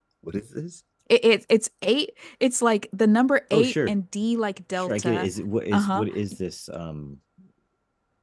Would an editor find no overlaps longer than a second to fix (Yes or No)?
Yes